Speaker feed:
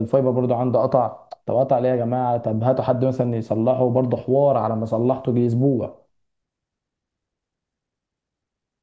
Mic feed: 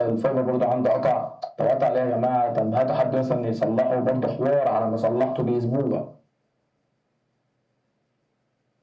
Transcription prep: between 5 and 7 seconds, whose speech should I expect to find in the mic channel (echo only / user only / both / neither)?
echo only